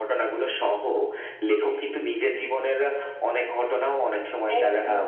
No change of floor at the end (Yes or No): No